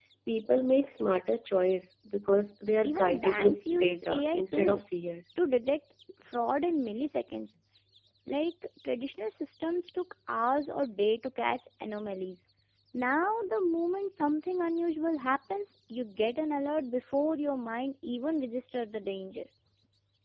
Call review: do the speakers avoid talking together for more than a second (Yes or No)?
No